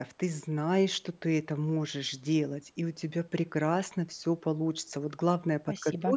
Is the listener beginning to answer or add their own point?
No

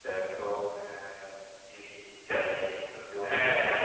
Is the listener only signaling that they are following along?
No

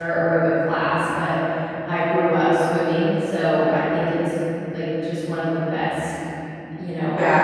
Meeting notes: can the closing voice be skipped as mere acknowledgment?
No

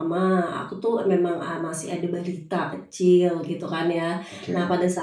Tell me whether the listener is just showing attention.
Yes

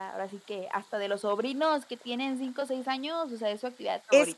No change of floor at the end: No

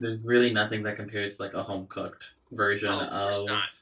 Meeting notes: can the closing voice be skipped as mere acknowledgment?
No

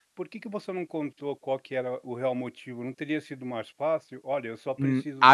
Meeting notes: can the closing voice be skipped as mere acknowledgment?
No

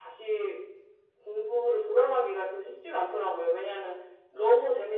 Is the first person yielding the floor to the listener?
No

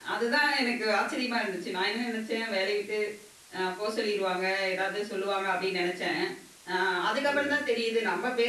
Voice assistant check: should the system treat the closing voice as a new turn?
No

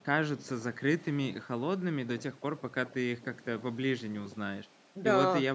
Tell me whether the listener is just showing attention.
Yes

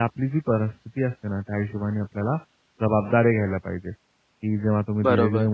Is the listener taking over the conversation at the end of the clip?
No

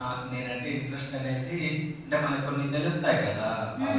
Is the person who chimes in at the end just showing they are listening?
No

